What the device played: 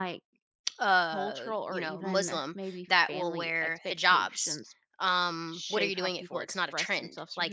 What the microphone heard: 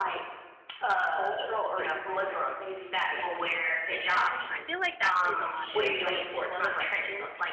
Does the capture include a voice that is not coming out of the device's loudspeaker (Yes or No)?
Yes